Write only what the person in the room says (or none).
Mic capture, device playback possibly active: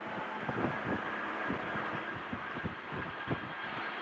none